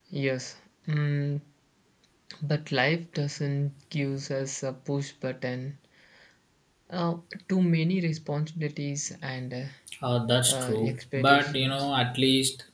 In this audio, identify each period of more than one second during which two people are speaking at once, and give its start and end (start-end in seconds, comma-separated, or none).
10.5-11.8